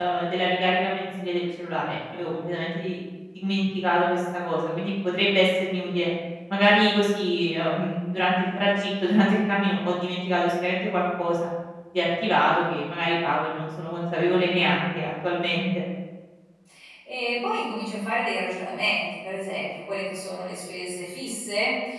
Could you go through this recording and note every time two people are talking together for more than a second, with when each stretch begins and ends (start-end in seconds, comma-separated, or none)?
none